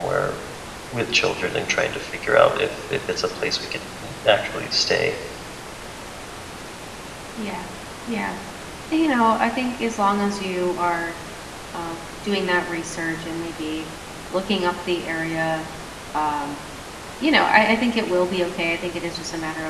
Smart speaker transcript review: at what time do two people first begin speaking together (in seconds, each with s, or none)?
none